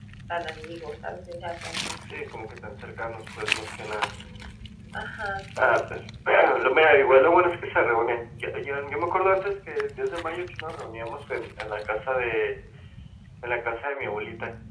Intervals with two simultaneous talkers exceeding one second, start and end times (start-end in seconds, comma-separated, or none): none